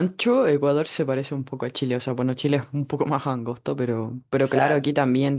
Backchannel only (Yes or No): Yes